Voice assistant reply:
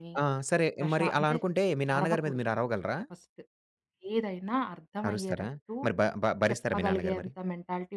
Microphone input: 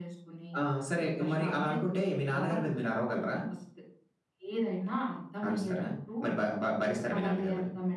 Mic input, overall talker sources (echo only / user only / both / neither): echo only